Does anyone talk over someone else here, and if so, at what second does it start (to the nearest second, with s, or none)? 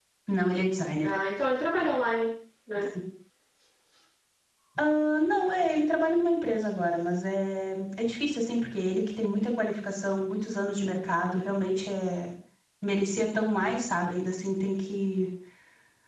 none